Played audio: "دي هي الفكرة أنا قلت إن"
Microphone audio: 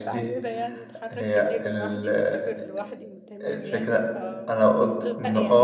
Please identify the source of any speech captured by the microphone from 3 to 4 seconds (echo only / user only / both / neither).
both